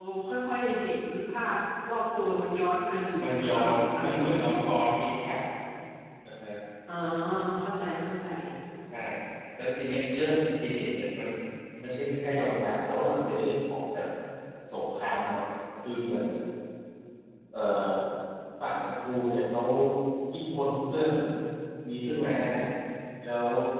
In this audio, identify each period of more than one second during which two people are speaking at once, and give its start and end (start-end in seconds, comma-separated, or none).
3.2-4.5